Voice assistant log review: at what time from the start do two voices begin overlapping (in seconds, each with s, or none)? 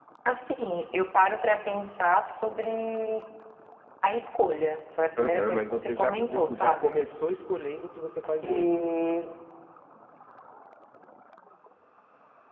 5.2 s